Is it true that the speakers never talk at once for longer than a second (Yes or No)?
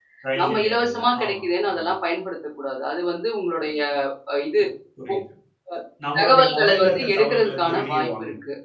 No